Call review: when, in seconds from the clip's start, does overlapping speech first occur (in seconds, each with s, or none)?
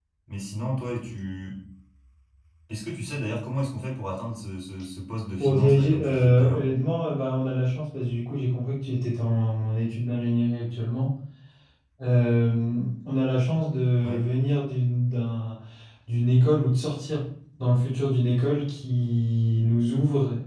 5.4 s